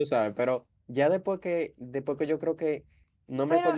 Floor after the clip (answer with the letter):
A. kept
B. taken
A